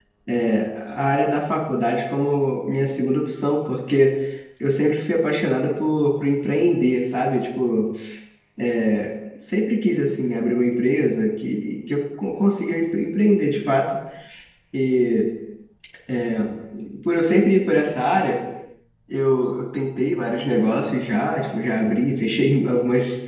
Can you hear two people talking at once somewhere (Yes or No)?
No